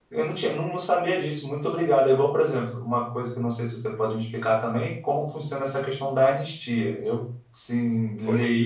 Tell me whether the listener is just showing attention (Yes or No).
No